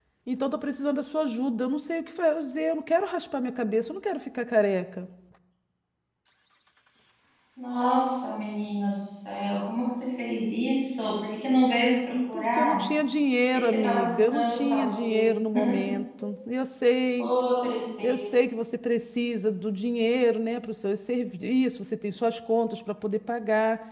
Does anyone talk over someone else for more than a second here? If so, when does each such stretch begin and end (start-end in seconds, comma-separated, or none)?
13.5-15.3